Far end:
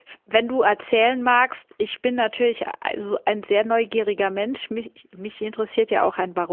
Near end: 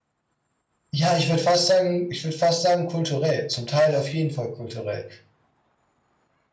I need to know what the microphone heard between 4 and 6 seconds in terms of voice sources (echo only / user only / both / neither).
user only